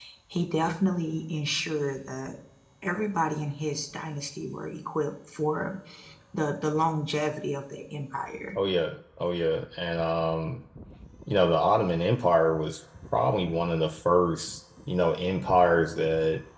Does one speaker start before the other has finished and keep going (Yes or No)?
No